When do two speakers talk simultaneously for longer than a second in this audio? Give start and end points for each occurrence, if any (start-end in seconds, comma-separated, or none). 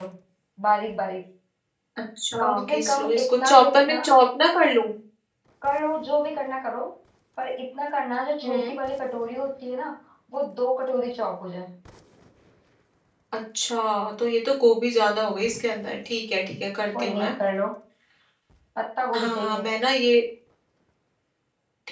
2.4-4.0